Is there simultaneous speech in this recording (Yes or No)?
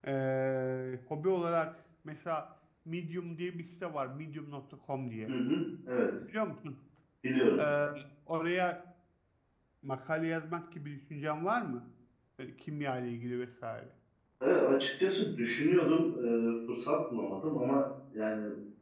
No